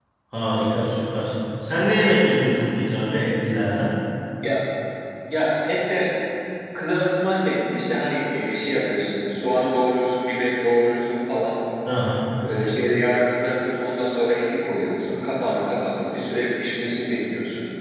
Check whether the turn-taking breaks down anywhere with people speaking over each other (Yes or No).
No